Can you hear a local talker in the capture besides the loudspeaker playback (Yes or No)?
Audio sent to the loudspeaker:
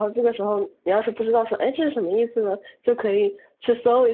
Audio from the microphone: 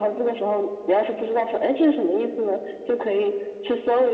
No